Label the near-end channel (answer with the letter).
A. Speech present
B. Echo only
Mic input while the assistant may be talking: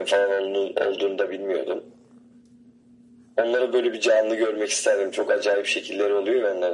B